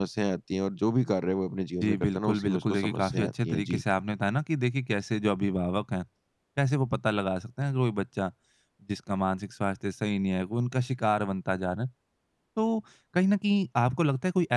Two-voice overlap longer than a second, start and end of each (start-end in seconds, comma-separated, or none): 1.8-3.8